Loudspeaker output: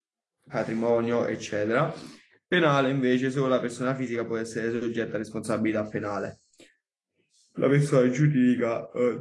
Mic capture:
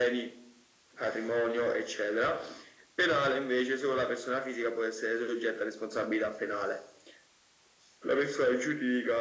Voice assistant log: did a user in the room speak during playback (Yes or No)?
No